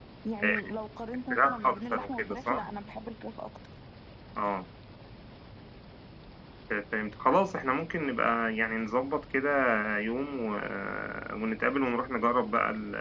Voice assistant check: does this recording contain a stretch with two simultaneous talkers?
Yes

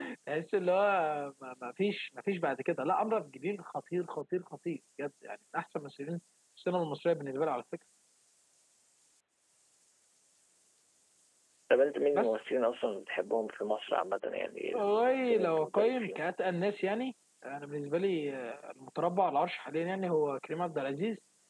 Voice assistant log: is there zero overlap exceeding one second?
No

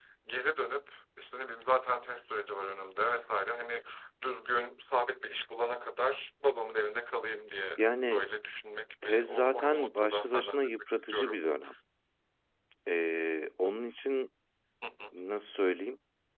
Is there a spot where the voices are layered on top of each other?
Yes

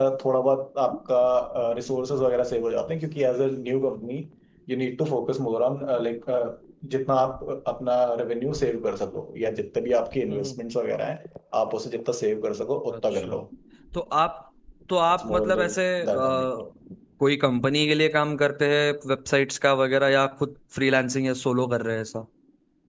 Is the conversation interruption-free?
No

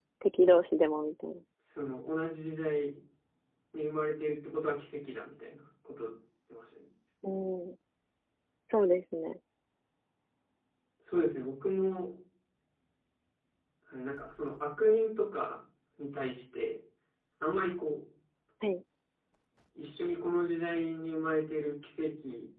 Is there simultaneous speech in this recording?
No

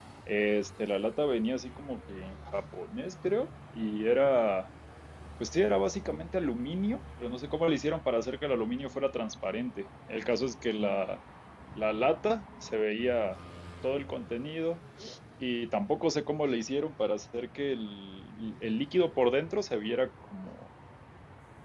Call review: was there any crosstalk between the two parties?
No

